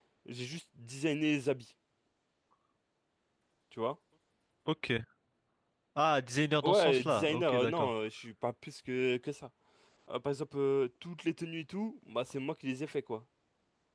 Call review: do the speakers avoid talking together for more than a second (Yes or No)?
No